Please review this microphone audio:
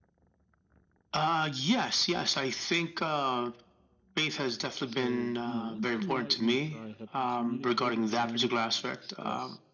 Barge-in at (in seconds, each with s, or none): 4.8 s